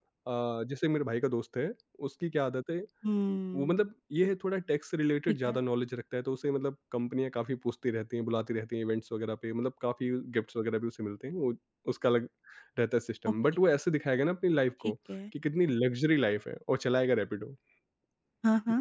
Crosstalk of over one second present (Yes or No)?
No